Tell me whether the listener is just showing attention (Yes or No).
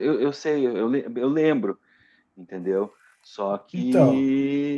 Yes